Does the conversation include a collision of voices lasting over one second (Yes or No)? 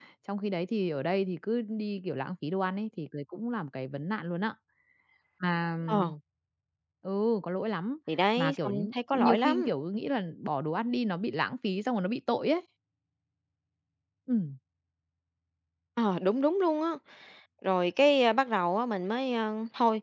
Yes